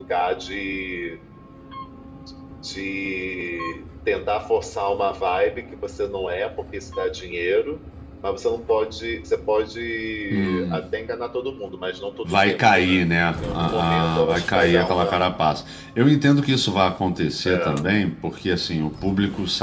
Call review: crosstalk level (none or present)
present